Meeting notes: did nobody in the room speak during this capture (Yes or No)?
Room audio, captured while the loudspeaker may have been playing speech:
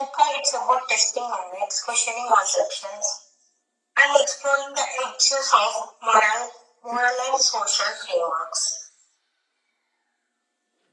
Yes